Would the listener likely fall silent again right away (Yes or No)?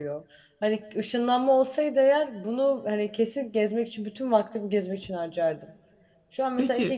Yes